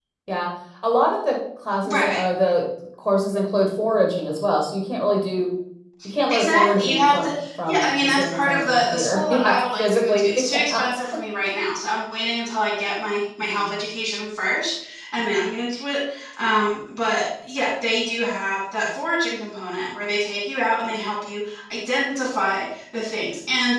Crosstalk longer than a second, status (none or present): present